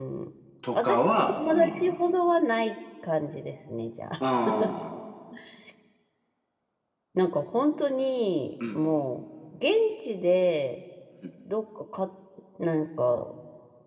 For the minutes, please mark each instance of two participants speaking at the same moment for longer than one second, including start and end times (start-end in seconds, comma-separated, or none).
0.7-1.9